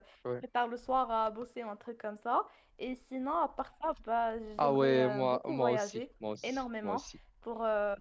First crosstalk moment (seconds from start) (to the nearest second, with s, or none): 5 s